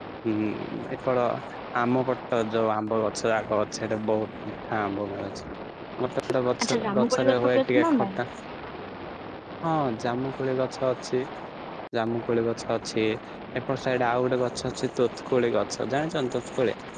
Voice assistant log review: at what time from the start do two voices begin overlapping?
6.6 s

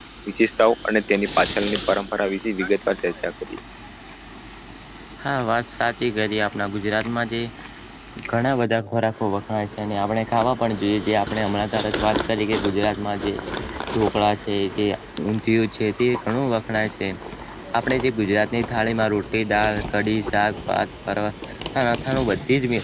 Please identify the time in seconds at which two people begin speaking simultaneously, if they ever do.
none

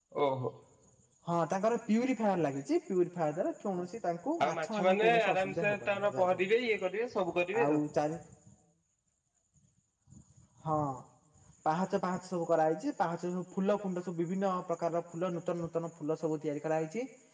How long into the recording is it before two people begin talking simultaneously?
4.4 s

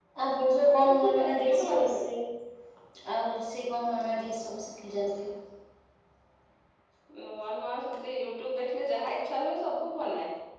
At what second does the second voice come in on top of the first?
0.6 s

